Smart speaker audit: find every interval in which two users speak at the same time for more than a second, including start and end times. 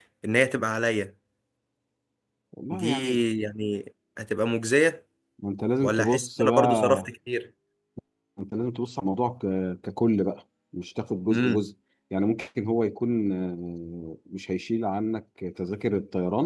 5.8-7.1

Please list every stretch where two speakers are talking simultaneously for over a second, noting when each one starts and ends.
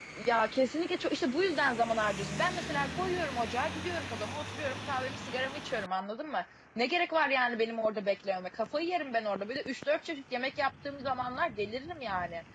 none

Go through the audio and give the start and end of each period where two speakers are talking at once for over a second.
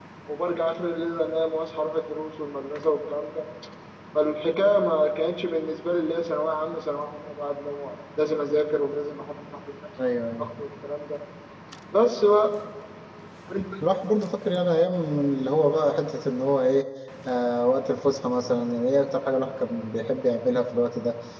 none

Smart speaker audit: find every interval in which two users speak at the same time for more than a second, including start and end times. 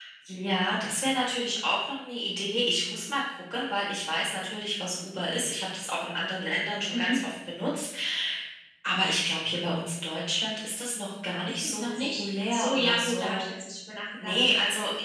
11.4-13.5

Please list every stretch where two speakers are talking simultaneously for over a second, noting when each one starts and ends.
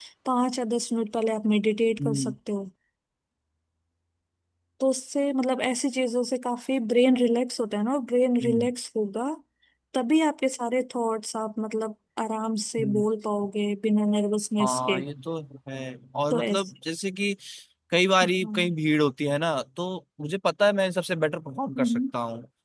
none

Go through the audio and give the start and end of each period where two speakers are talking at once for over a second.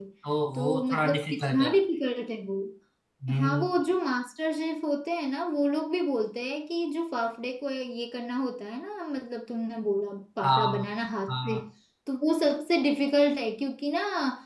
0.5-1.7

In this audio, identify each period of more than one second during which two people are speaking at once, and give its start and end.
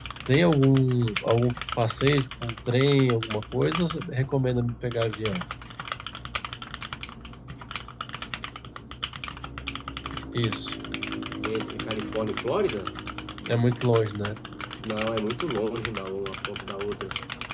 none

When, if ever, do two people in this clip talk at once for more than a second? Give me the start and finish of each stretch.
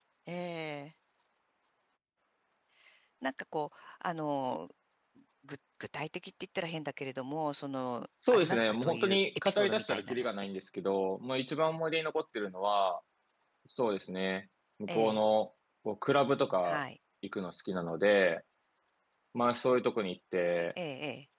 8.3-10.2

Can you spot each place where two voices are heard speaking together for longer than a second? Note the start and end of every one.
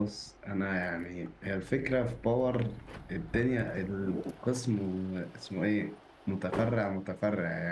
none

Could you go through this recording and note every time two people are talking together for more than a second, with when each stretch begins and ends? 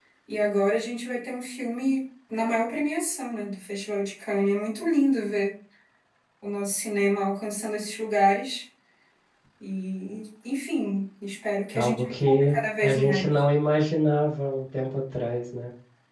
11.7-13.4

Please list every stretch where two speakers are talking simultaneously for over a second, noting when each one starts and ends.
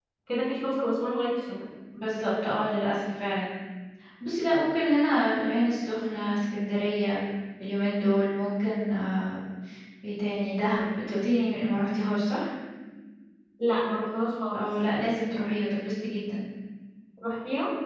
none

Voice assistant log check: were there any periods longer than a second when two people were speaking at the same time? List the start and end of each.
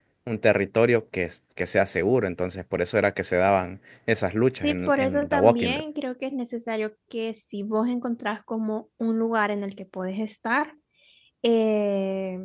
4.6-5.8

